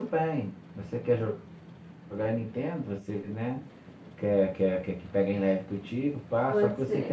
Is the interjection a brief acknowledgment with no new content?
Yes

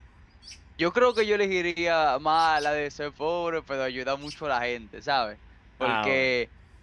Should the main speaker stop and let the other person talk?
No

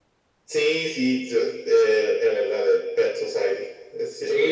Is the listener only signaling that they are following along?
No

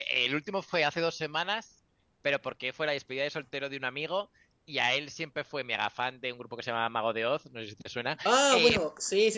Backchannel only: No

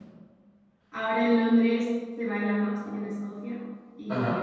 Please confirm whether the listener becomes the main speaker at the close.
No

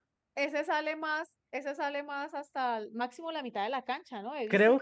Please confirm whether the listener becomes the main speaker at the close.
Yes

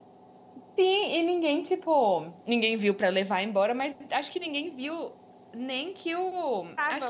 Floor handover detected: No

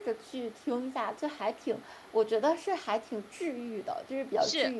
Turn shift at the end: Yes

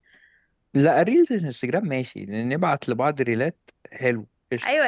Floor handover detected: Yes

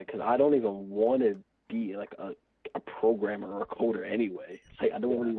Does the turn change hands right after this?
No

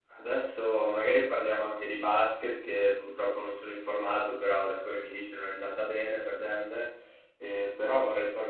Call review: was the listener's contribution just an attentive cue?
Yes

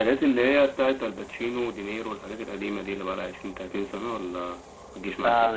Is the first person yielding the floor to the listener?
Yes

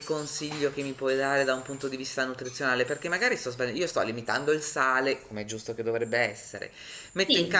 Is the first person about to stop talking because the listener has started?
Yes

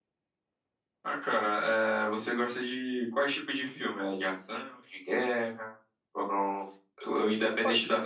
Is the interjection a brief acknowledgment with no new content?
Yes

